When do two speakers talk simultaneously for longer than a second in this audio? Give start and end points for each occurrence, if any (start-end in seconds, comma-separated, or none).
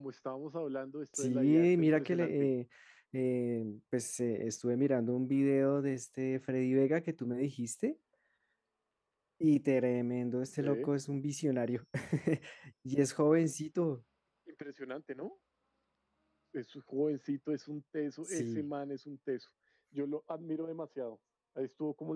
1.2-2.5